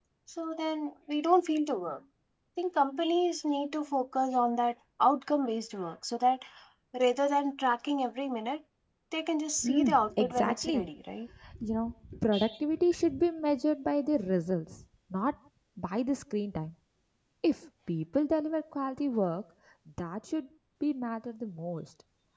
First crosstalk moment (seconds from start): 10 s

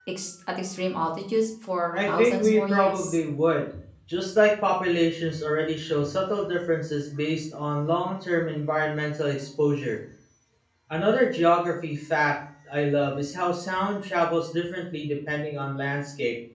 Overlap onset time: 2 s

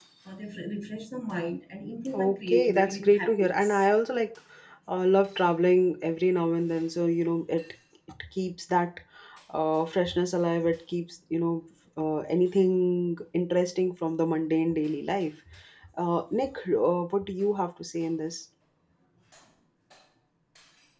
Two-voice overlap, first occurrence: 2 s

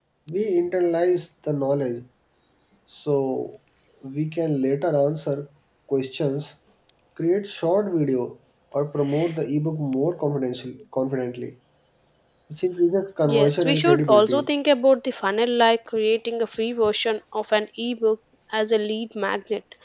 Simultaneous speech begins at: 13 s

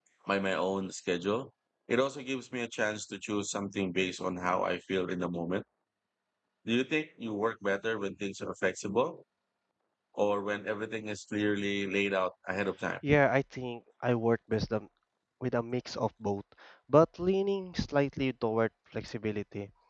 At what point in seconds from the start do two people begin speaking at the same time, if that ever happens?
none

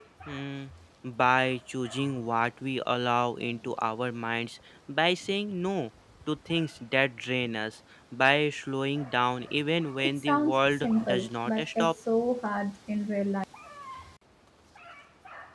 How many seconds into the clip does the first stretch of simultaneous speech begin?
10 s

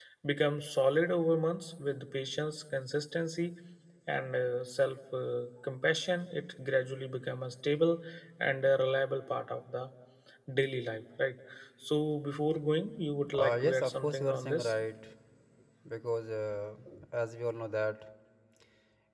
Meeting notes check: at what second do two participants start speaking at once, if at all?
13 s

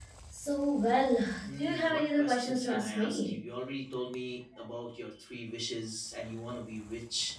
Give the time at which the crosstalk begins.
1 s

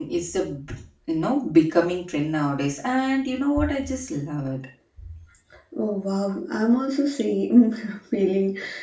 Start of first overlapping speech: none

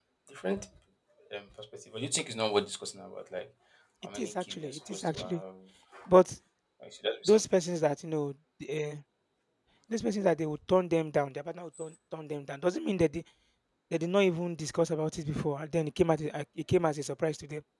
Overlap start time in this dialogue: 4 s

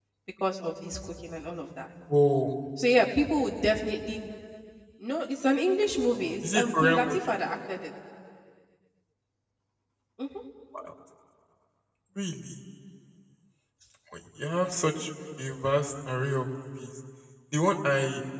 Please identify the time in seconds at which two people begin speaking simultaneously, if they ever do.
6 s

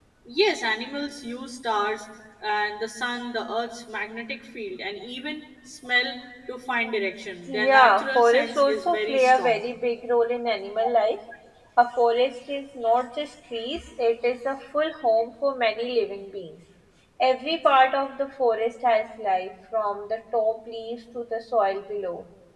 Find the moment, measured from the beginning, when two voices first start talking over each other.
7 s

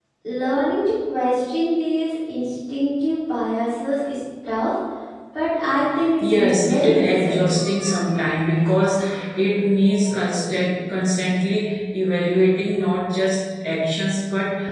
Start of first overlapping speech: 6 s

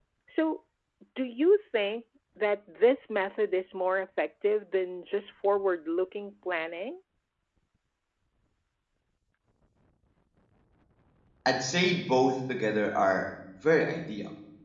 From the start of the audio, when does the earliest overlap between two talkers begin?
none

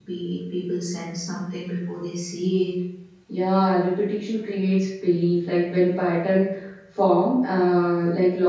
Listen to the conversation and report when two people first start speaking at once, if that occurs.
none

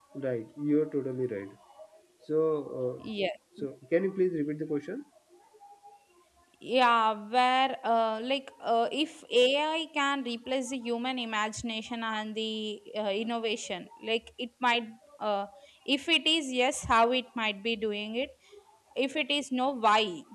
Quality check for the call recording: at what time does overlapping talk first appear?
none

